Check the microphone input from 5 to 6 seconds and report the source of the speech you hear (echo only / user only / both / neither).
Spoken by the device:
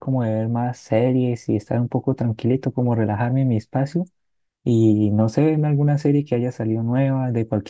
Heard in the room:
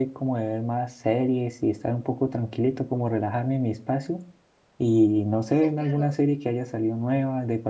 both